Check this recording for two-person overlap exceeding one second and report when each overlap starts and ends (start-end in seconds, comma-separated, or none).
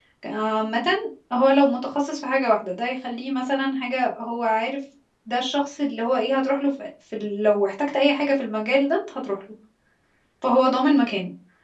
none